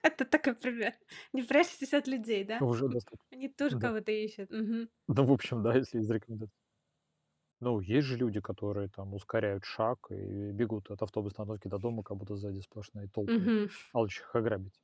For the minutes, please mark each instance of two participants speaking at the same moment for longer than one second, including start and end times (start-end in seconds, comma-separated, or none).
none